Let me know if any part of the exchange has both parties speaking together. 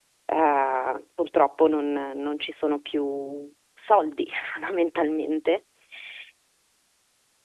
No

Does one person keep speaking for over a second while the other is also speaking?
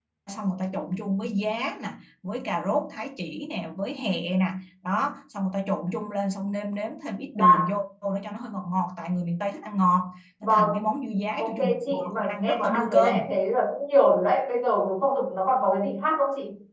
Yes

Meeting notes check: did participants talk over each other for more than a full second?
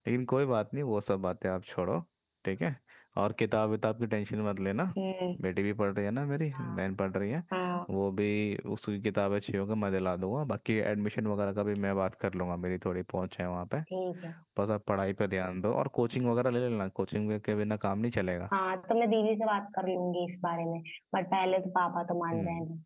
No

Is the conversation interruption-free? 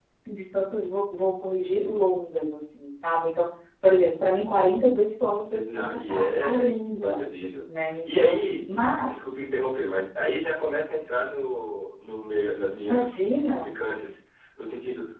No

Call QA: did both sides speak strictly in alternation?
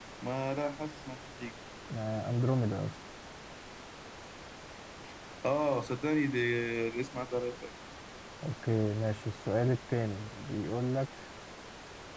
Yes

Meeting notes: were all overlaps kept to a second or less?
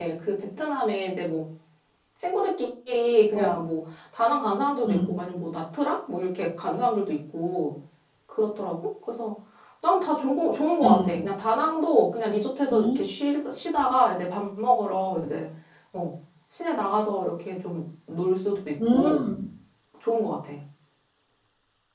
Yes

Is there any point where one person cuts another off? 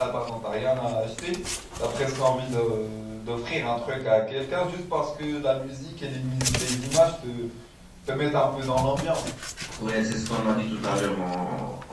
No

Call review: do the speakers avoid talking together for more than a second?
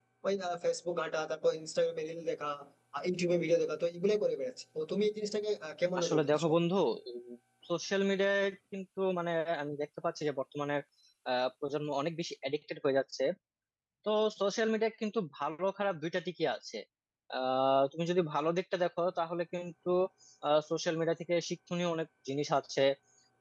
Yes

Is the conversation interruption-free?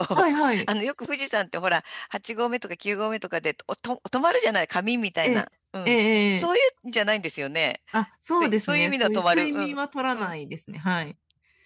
No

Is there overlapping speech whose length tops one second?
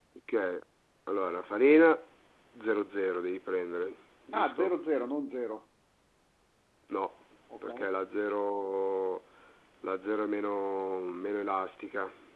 No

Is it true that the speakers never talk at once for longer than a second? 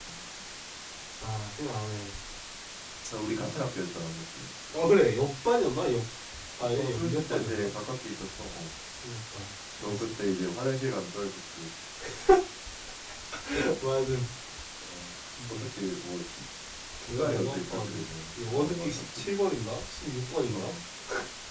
No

